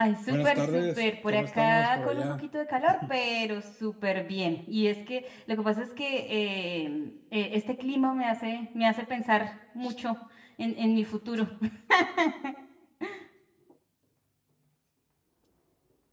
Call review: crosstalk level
present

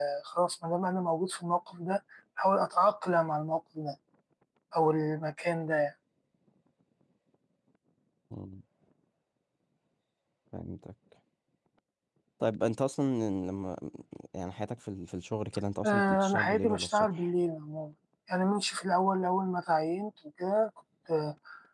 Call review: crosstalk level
present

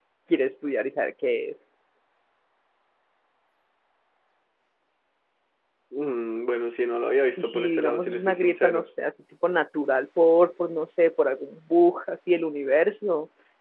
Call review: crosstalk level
present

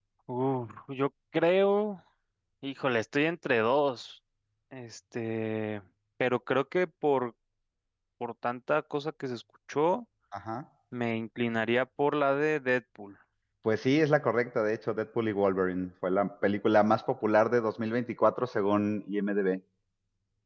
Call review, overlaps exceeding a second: none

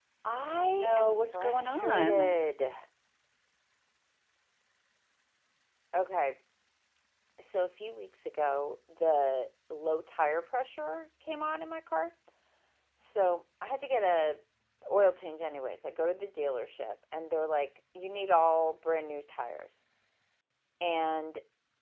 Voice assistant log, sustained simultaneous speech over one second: present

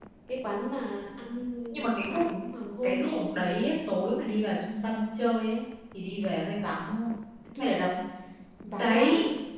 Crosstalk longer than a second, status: none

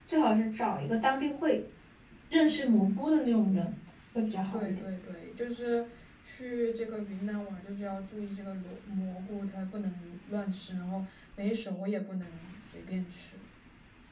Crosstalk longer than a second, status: none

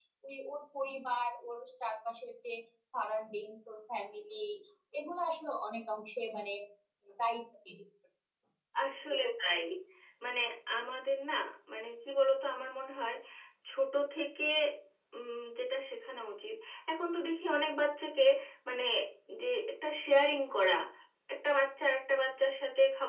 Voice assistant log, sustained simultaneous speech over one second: none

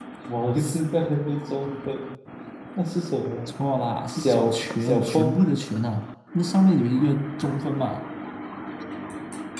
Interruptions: present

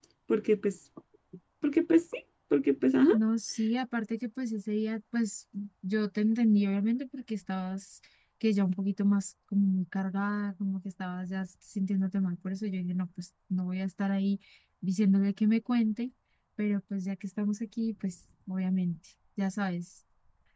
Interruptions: none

